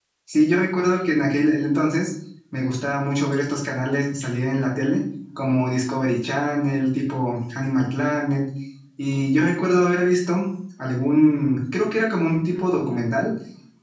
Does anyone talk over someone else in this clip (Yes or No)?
No